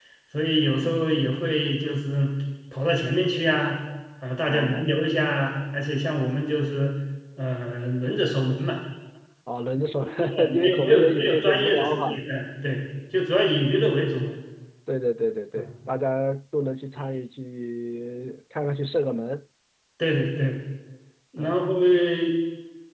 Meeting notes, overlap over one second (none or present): present